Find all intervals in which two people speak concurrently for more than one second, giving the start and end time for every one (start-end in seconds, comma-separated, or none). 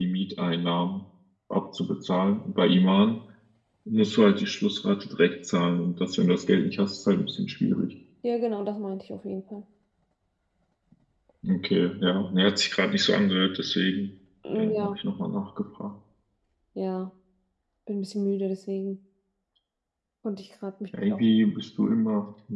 none